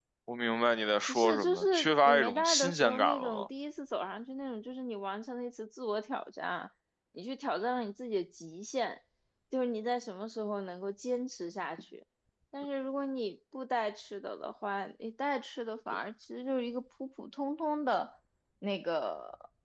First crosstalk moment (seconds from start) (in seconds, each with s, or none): 1.1 s